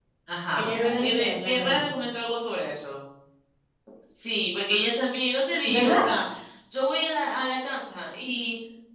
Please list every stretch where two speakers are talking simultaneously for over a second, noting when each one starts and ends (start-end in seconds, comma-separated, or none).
0.6-1.9